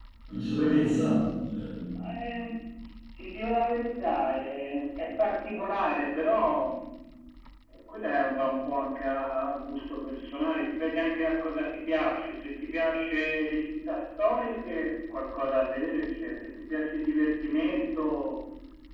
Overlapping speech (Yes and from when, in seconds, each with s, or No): No